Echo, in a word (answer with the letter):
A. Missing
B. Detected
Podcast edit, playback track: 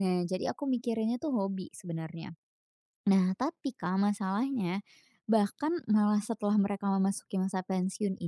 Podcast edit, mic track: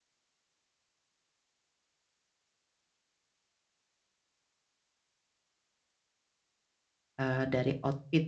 A